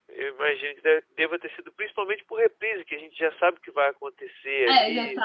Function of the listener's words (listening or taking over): taking over